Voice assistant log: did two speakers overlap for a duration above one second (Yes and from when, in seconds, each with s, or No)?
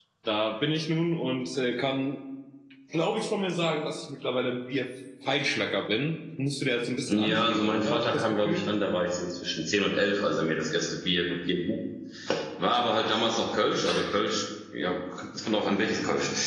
Yes, from 7.1 s